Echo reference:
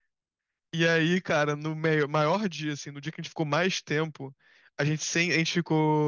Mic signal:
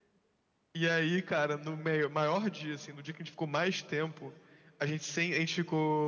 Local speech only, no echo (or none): none